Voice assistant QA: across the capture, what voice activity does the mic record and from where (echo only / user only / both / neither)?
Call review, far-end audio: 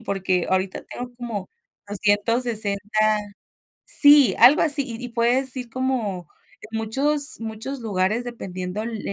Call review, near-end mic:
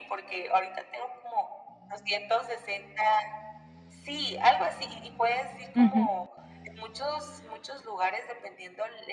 both